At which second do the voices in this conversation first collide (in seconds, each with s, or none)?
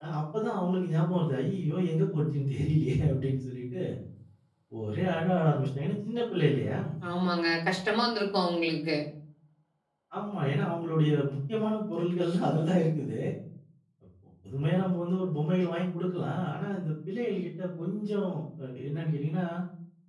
none